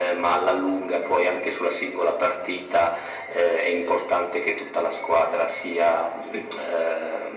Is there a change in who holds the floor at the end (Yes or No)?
No